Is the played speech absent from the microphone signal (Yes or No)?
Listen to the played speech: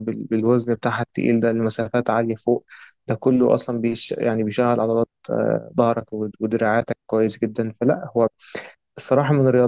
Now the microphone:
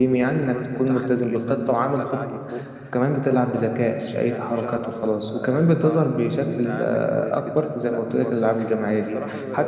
No